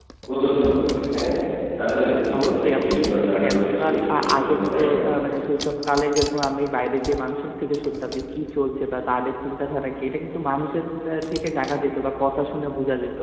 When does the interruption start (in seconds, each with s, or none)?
2.4 s